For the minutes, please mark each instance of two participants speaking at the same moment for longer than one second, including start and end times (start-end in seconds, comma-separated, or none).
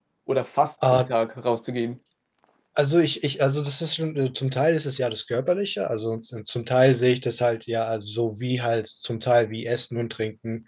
none